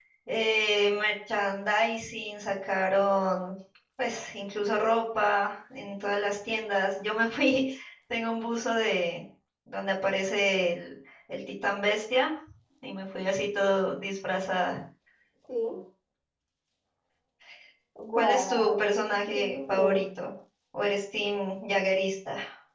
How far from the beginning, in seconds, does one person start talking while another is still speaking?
18.1 s

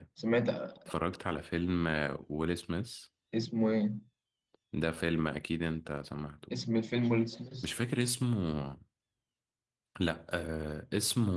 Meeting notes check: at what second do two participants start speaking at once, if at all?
none

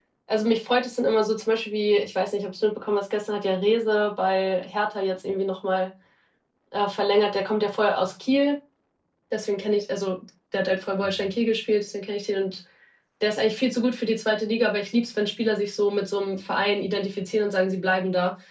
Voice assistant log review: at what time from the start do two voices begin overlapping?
none

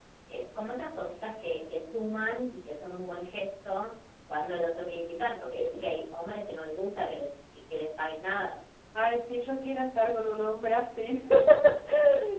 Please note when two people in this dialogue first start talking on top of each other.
none

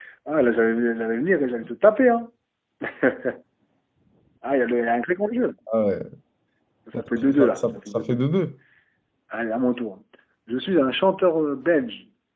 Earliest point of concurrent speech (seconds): 6.9 s

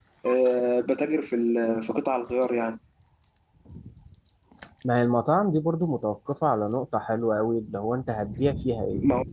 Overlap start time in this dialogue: none

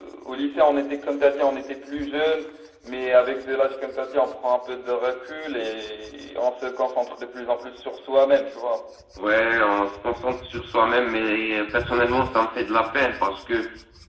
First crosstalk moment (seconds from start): none

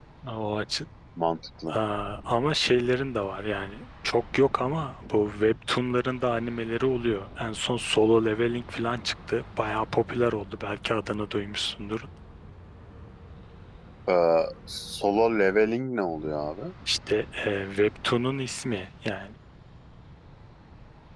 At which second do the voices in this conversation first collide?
none

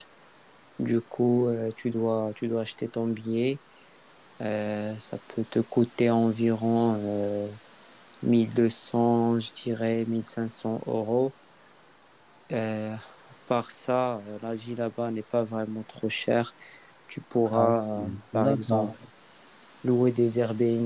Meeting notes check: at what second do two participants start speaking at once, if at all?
17.5 s

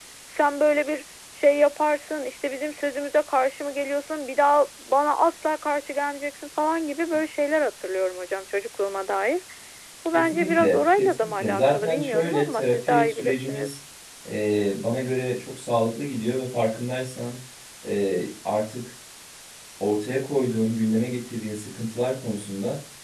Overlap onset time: 10.1 s

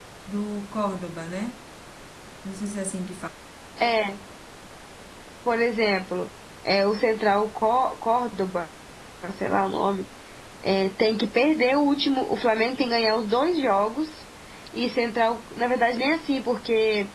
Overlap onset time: none

